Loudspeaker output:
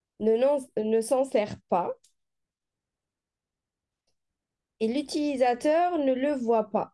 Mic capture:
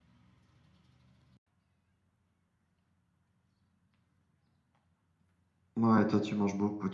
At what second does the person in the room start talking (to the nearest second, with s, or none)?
6 s